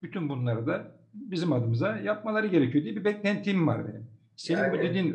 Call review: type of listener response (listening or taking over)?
listening